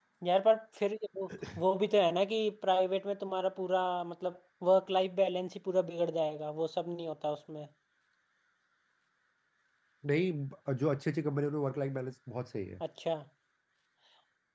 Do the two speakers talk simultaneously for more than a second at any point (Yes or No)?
No